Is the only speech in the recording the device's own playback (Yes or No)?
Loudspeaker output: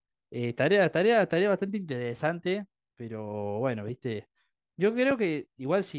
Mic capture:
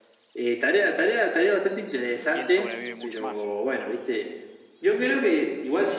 No